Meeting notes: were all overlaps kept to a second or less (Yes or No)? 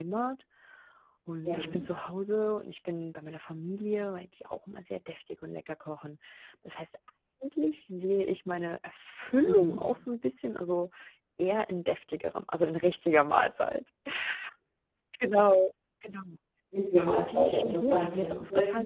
No